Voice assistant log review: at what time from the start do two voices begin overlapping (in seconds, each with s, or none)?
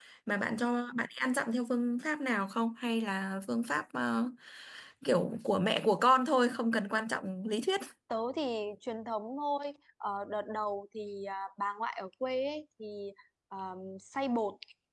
none